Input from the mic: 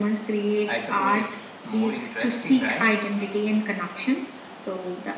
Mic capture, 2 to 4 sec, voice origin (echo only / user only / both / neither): echo only